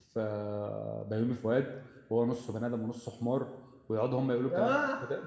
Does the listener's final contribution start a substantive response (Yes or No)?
No